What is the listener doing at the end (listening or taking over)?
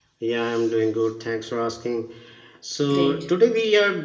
listening